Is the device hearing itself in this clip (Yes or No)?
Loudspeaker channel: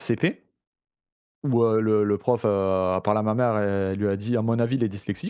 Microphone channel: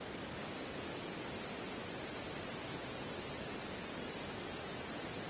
No